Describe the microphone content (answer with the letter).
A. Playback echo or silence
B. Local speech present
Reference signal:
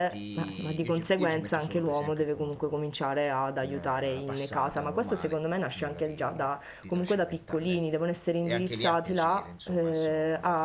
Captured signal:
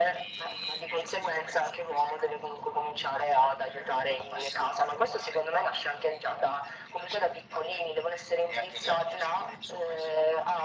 A